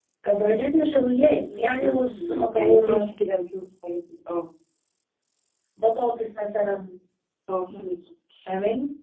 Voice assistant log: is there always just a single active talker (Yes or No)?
No